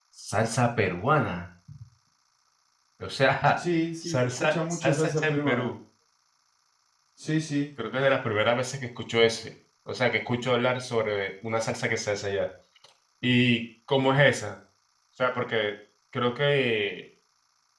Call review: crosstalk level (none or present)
present